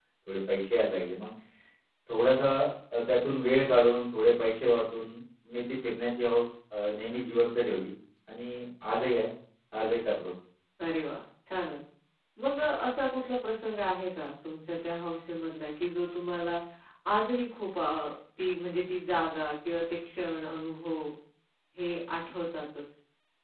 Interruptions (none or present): none